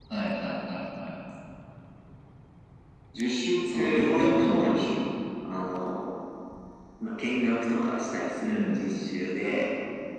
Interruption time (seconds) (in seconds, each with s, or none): 3.7 s